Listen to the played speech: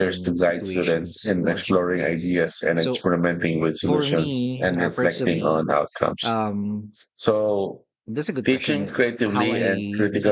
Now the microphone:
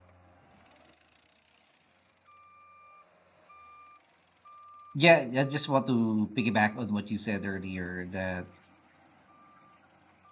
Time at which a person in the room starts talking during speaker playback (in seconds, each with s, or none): 4.9 s